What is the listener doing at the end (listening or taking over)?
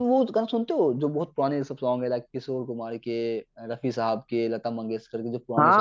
taking over